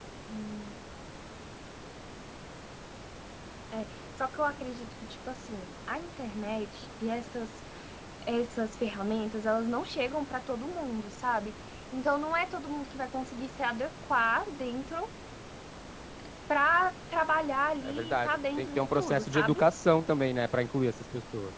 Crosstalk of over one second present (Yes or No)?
Yes